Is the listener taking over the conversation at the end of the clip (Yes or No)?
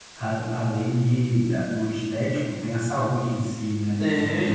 Yes